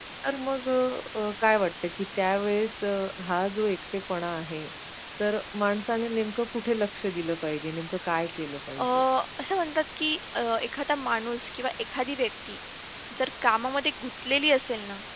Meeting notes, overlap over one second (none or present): none